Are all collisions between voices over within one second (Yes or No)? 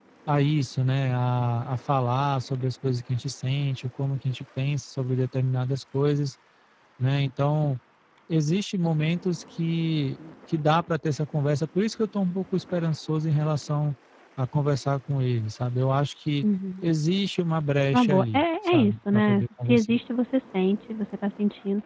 No